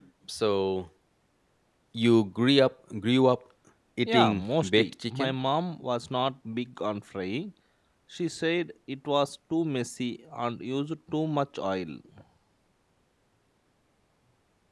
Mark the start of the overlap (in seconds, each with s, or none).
4.1 s